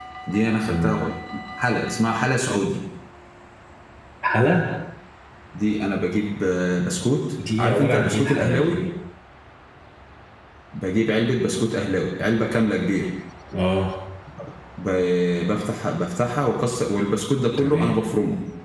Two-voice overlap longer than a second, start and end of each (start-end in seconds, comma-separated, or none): 7.6-8.8